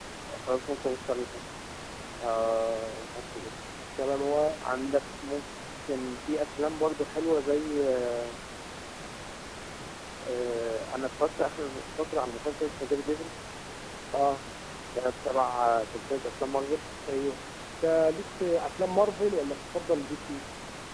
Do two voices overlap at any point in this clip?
No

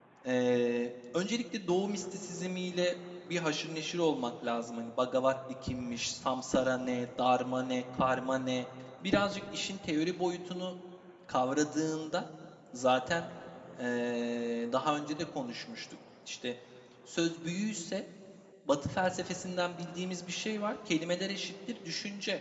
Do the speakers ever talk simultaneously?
No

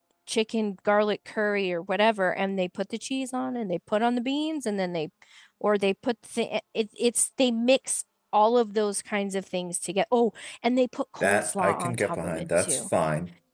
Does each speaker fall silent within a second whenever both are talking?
No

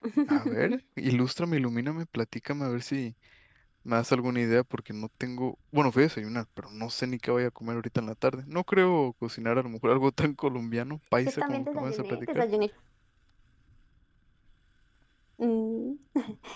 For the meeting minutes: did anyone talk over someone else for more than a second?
Yes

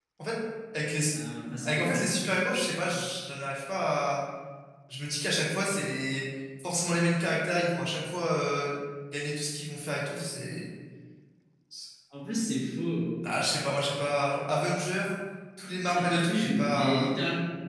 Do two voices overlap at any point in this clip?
Yes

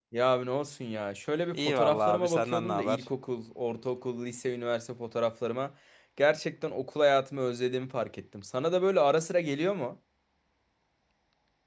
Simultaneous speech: Yes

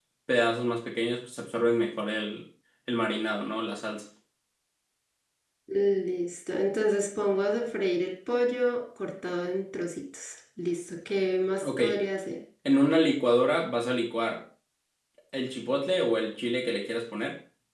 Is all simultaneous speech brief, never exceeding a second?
Yes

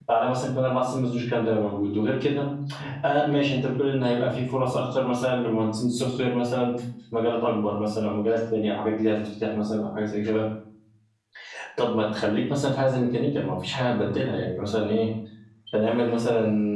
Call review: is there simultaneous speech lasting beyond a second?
No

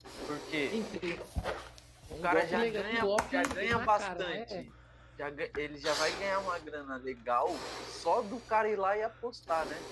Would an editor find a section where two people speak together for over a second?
Yes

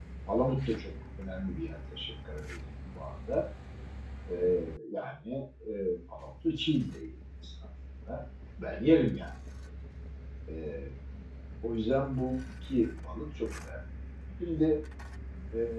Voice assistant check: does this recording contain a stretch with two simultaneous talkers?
No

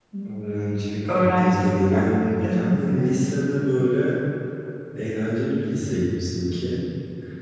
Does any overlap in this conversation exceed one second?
Yes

